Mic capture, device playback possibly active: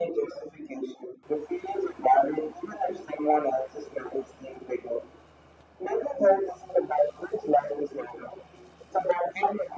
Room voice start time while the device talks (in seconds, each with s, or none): none